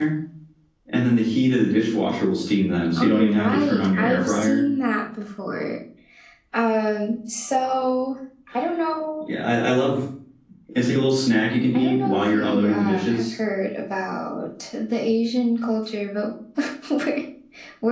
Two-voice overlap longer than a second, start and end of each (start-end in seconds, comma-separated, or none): 3.0-4.6, 11.7-13.3